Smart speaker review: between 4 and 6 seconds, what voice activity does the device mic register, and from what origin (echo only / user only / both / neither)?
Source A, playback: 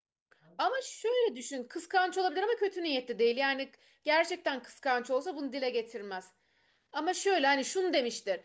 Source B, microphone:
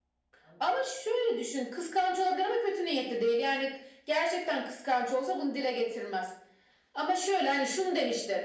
echo only